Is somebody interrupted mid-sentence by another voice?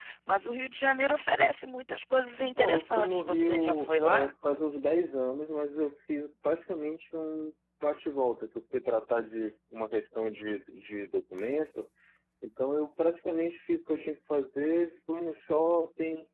Yes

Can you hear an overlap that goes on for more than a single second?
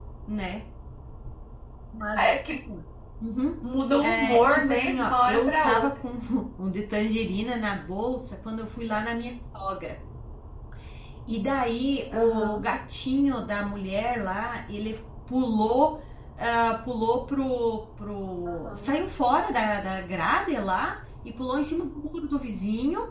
Yes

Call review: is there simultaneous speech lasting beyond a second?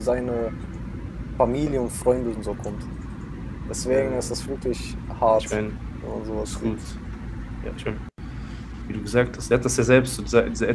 No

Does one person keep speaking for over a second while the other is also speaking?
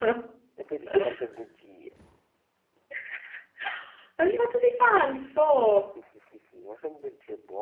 No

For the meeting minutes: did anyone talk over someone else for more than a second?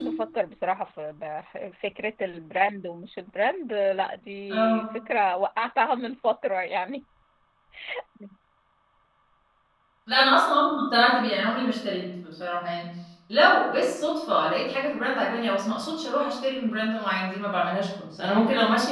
No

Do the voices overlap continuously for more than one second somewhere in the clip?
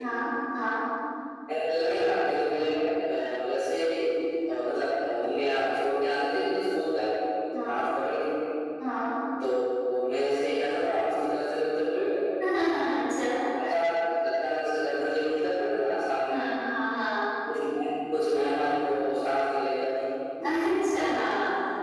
No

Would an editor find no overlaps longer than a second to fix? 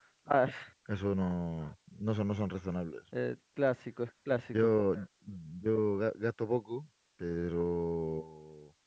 Yes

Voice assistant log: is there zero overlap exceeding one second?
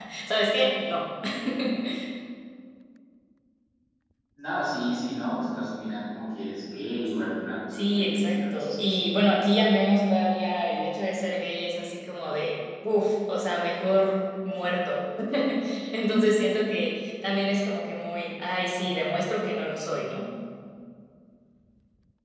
No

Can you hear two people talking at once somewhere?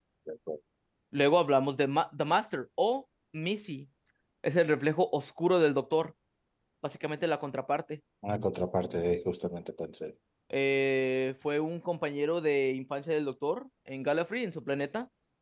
No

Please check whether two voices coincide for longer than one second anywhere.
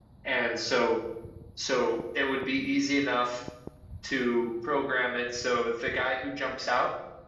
No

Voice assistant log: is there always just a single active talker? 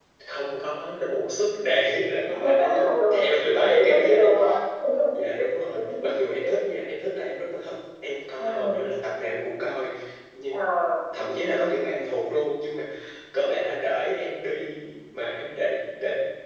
No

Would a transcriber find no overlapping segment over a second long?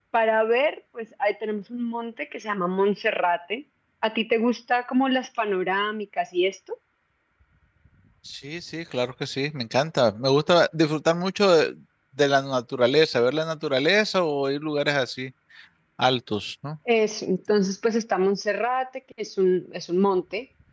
Yes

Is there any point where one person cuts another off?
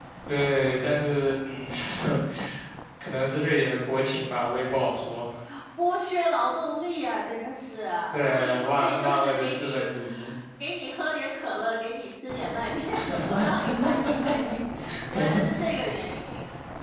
Yes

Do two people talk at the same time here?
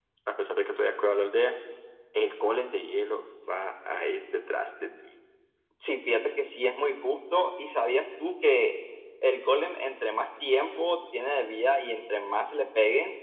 No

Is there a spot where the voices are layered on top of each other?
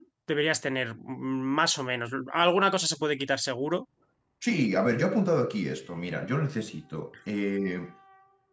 No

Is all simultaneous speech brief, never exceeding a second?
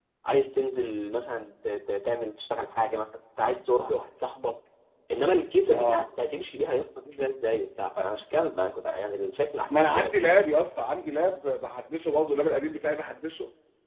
Yes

